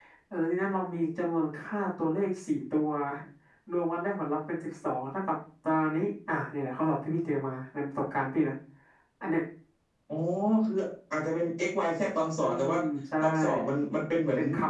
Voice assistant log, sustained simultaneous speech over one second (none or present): none